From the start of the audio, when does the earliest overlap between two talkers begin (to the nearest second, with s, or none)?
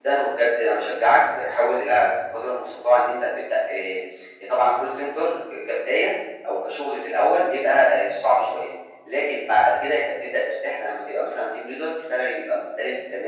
none